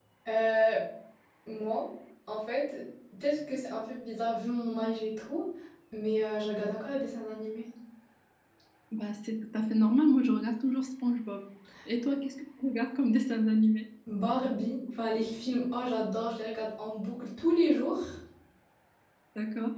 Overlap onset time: none

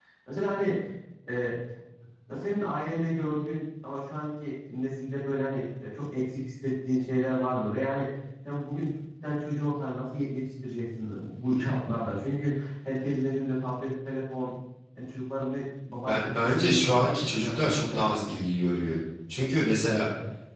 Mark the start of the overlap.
16.1 s

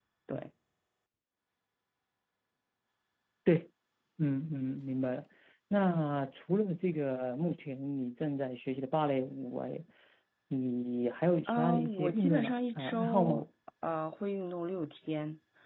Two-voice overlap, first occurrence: 11.5 s

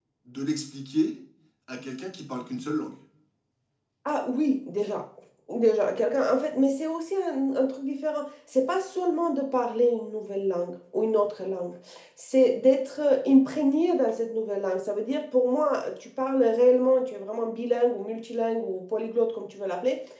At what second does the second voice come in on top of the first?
none

